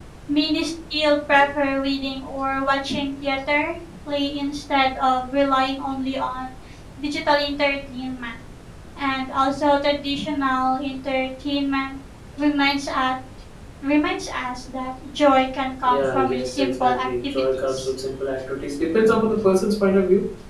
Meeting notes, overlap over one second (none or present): present